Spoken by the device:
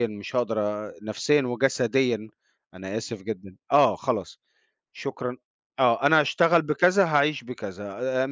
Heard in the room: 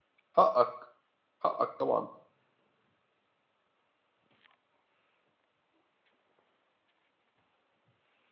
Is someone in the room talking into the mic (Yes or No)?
Yes